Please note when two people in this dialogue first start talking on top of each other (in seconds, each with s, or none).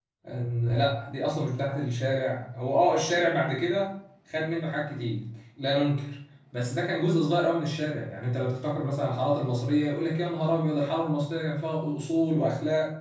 none